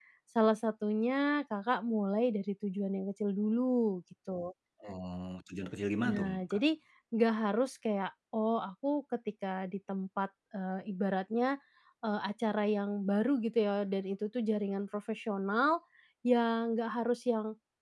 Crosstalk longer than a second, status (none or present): none